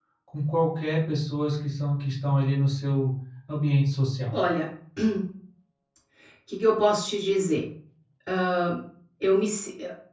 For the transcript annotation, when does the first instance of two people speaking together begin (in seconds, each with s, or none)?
none